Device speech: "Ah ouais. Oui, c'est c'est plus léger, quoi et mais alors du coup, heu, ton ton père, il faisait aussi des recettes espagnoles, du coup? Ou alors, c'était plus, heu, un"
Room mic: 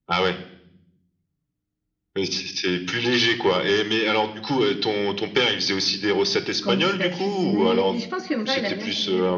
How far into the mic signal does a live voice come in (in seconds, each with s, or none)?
6.6 s